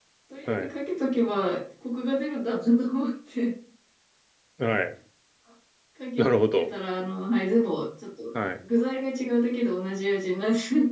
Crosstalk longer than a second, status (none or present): none